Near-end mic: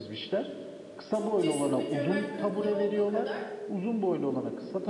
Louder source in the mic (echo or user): echo